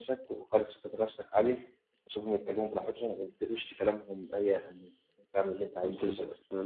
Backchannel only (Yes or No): No